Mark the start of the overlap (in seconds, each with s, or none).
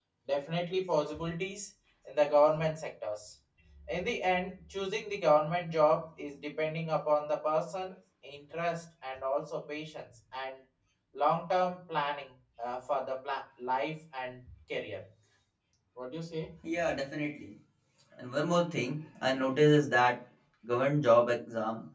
none